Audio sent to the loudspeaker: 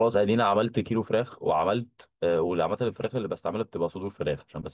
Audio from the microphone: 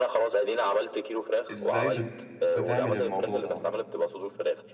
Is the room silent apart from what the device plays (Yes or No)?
No